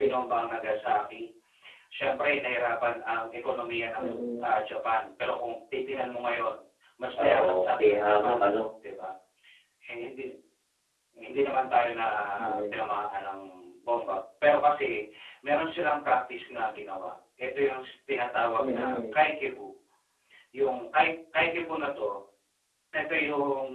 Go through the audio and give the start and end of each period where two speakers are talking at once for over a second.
7.2-8.4

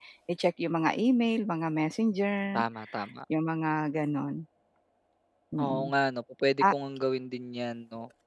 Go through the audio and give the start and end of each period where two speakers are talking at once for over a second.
none

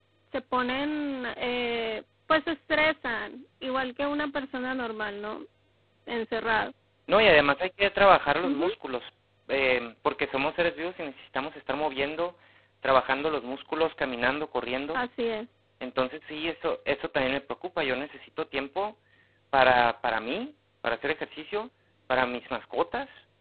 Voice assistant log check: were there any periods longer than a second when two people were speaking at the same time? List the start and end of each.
none

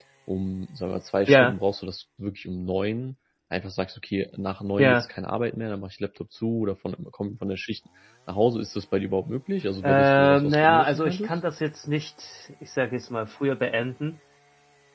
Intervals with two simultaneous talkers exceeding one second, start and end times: 9.8-11.4

